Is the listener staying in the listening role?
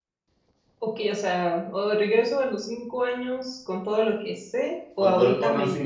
No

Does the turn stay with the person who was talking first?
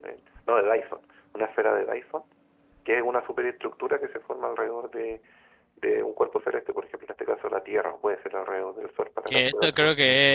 No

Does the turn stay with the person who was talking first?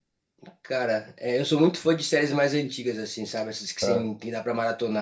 Yes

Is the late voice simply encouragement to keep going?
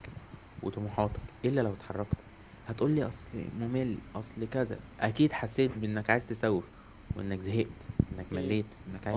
No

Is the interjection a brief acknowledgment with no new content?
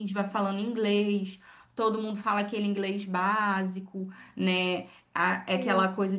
Yes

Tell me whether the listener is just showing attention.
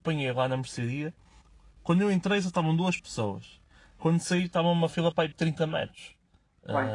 Yes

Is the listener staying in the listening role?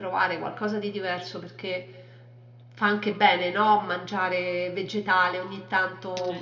Yes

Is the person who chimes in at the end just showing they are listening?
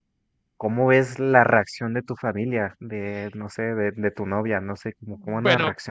No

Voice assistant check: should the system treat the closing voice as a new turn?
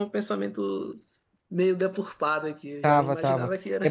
Yes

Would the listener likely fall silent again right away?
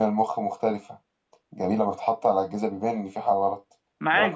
No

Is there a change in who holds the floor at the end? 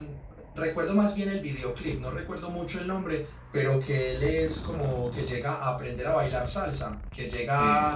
No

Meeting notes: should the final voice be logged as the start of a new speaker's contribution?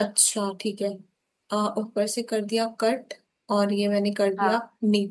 No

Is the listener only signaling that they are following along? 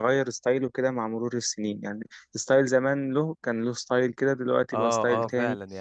No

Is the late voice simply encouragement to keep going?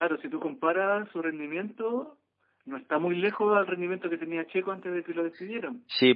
No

